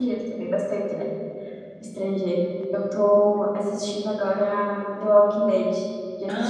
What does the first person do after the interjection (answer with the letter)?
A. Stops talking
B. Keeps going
A